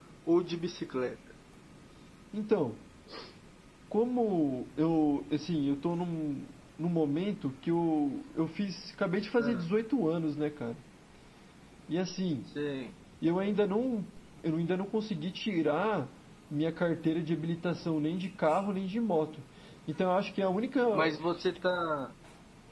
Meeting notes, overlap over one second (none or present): none